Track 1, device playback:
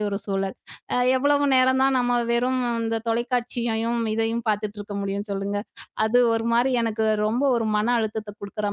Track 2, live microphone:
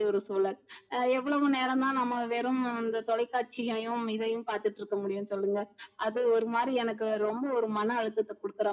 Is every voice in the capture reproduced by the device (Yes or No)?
Yes